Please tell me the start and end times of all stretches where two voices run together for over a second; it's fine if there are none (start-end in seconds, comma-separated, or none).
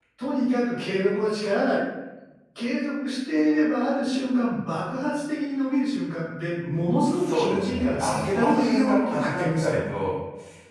7.0-9.8